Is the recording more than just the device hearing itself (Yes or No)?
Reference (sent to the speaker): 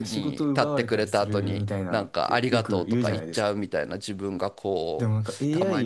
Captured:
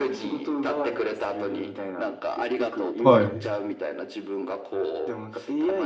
Yes